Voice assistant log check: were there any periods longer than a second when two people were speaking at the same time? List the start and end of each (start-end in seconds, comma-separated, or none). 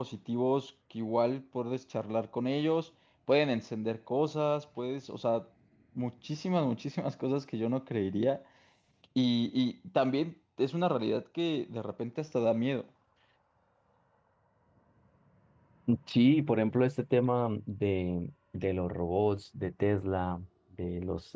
none